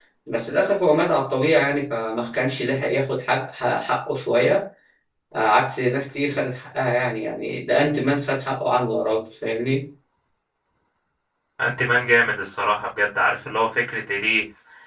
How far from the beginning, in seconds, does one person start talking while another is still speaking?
none

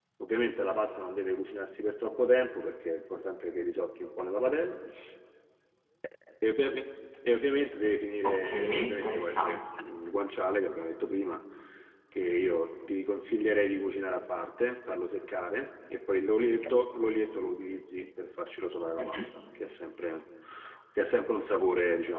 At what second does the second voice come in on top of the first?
8.2 s

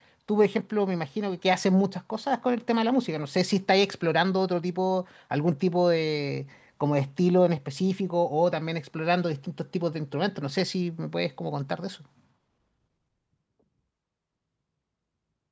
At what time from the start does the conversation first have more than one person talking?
none

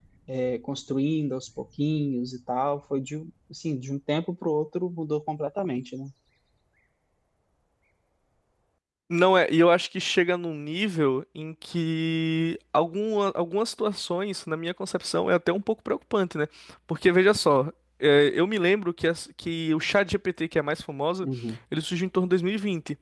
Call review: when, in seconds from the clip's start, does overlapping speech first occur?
none

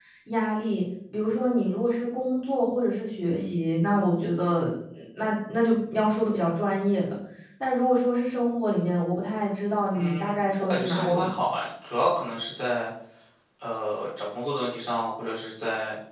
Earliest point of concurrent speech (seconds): 9.9 s

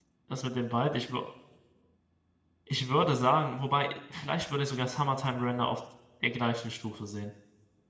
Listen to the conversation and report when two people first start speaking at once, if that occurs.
none

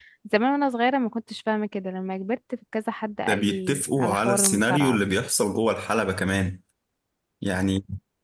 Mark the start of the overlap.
3.3 s

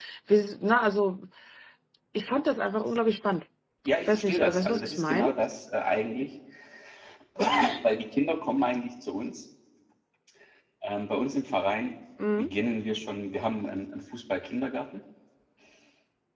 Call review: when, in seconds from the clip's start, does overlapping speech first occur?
4.1 s

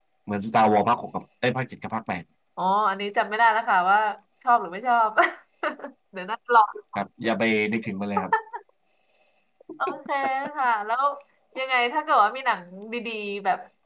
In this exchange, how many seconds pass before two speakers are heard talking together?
none

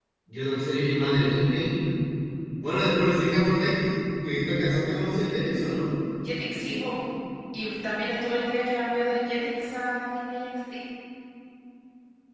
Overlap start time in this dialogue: none

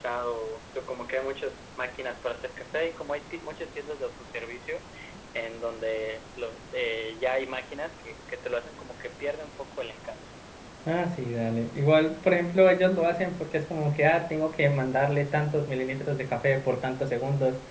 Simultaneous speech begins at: none

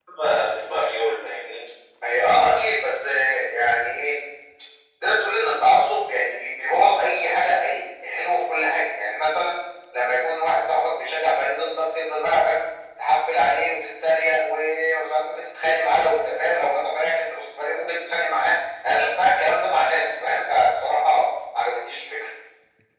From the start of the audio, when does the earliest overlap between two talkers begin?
none

